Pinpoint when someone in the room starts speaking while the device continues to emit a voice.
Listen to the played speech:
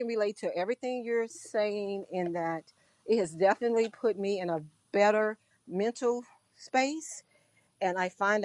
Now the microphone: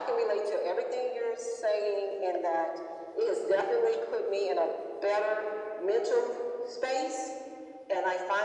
none

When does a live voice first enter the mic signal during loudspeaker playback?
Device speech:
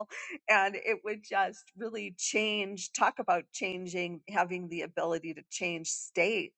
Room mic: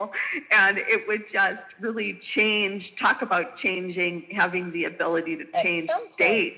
6 s

